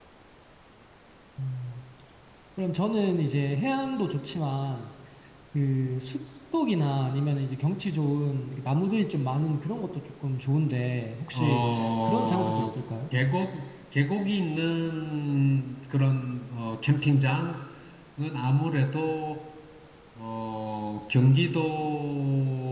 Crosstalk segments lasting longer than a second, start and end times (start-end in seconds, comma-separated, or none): 11.3-12.7